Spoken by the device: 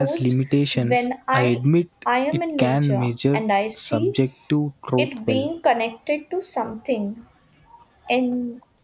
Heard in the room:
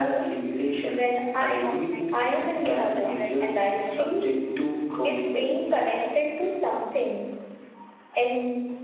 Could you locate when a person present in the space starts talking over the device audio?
2 s

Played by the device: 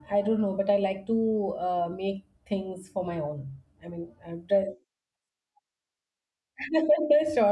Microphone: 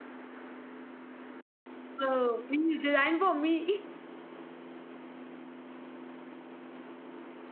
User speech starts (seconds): 2 s

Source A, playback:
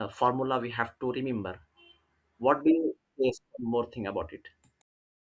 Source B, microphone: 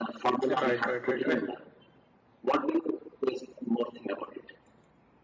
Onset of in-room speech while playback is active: 0 s

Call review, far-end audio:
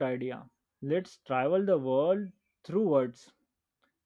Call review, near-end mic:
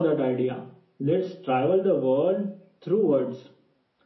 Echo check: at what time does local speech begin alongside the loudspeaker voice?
none

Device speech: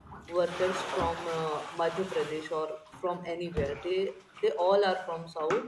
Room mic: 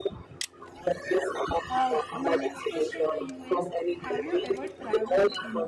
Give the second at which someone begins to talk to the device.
2 s

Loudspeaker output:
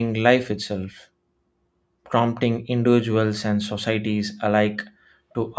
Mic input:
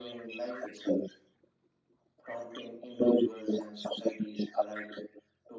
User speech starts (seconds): none

